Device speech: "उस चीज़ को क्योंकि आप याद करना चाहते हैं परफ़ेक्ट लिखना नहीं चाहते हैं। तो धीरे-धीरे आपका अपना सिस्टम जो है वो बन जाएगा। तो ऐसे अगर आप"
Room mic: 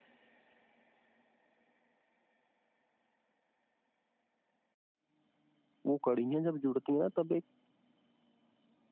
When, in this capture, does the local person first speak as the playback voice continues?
5.8 s

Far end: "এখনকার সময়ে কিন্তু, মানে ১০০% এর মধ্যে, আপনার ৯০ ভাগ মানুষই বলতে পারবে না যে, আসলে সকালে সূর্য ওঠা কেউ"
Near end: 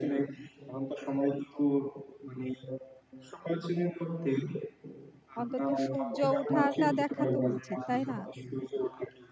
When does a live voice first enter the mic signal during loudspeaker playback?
5.4 s

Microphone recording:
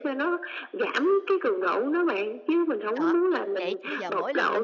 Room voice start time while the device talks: 3.0 s

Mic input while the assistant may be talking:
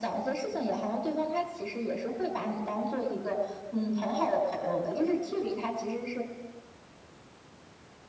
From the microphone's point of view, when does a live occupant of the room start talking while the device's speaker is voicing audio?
none

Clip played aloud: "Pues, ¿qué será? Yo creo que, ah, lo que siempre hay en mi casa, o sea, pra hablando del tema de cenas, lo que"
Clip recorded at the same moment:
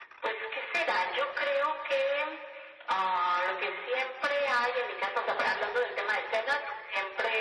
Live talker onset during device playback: none

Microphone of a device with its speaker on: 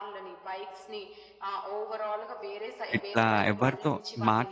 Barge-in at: 3.0 s

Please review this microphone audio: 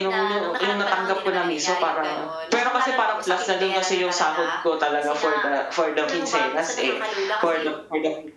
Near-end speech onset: none

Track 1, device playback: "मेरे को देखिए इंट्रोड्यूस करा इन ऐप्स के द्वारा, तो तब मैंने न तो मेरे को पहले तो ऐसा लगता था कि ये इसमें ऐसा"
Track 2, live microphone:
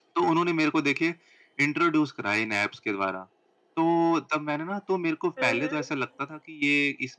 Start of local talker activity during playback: 5.4 s

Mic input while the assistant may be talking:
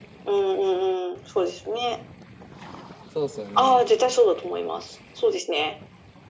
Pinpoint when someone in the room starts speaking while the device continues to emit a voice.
3.0 s

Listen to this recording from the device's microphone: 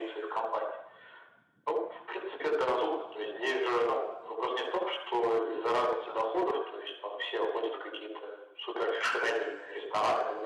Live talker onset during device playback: none

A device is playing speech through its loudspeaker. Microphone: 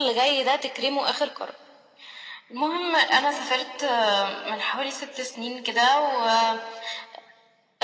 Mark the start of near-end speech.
none

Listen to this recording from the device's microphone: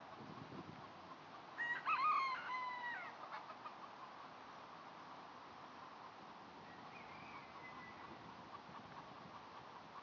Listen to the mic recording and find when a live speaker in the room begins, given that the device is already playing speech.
none

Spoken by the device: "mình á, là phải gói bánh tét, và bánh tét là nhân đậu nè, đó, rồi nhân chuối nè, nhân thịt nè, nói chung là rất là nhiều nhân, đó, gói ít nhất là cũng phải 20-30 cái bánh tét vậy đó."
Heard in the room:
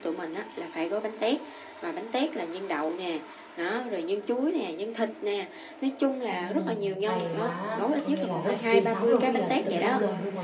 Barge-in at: 6.3 s

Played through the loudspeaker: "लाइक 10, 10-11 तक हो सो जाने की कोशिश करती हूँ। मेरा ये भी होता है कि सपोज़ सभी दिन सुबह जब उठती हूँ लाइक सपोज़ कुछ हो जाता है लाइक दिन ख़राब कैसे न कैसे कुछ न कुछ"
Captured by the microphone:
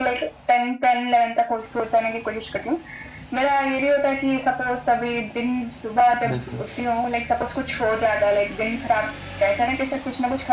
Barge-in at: 6.3 s

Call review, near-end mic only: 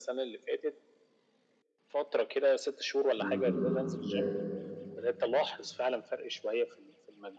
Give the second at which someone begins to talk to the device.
3.2 s

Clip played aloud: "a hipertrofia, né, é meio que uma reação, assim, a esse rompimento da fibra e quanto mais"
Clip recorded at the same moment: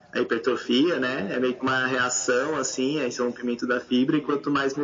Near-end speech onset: none

